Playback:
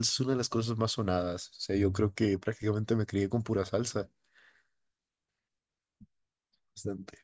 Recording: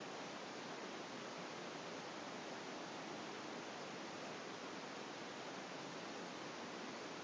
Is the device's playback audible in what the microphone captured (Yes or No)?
No